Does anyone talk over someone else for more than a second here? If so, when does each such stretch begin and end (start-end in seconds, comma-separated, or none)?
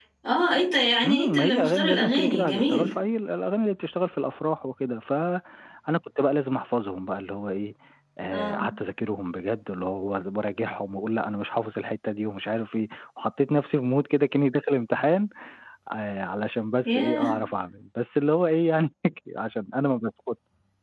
1.0-2.9